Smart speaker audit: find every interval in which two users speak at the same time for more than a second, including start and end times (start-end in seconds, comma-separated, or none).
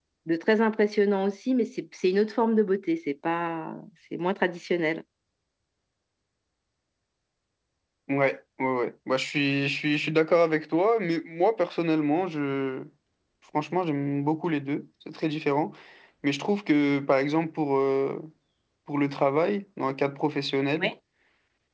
none